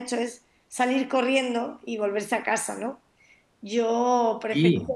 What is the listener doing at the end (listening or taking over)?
listening